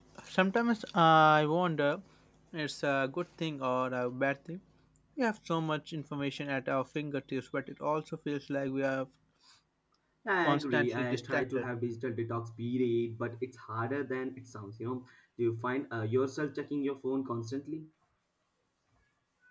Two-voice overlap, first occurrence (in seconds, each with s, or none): 10.4 s